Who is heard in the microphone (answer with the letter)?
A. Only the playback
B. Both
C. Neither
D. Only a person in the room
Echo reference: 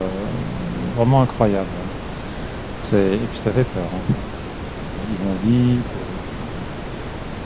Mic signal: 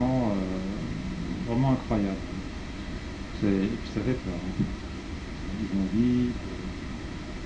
A